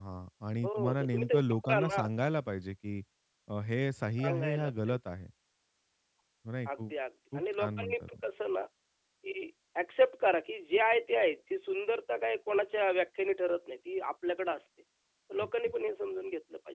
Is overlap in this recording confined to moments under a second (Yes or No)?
No